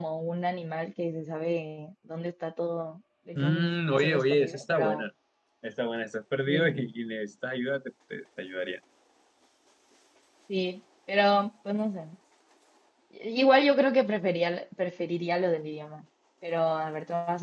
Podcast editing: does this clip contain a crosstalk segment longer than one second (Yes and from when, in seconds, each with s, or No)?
Yes, from 3.4 s